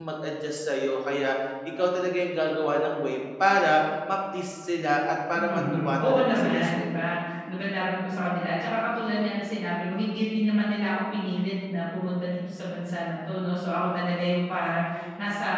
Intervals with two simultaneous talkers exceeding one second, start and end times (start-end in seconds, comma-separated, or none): 5.3-6.9